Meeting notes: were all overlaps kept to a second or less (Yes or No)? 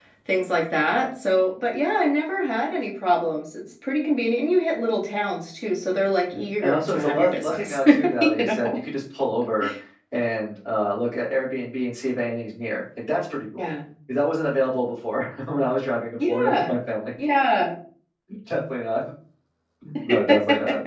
No